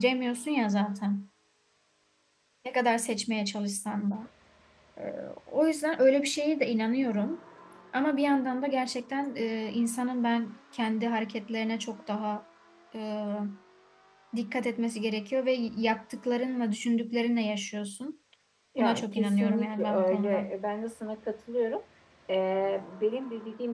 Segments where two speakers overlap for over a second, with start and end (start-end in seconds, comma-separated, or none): 18.8-20.5